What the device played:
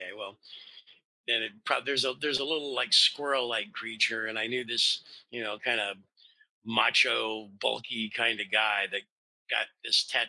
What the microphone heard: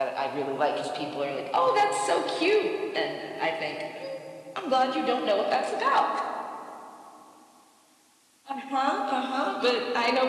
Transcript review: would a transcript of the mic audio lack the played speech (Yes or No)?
Yes